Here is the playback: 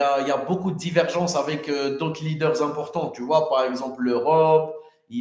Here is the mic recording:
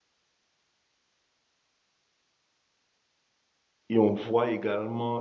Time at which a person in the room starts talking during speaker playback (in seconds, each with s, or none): 3.9 s